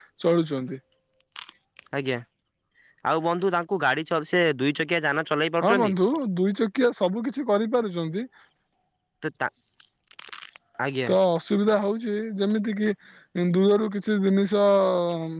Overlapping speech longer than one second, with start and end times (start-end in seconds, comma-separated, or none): none